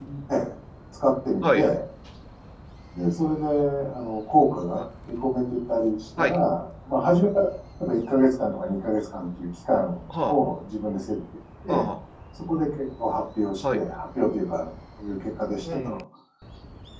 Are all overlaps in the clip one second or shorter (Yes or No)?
Yes